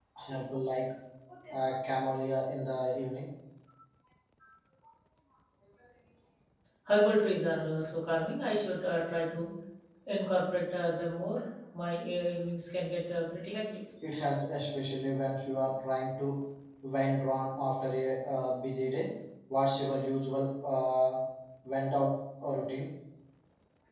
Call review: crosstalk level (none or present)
none